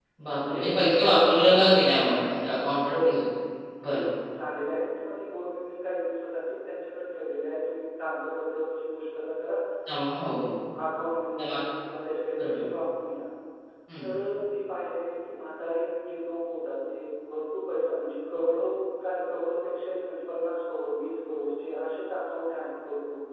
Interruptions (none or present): present